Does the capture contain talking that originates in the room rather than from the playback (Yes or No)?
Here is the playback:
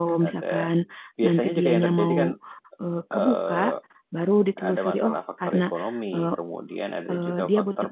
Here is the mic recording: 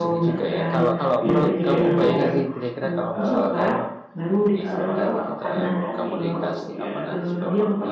Yes